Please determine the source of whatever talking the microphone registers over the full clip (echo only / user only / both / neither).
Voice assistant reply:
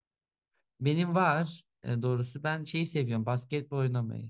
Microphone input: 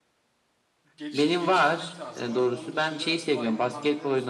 both